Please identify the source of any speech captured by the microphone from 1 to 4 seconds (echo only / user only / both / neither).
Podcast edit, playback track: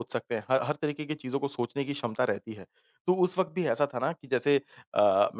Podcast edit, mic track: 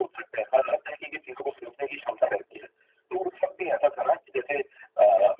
echo only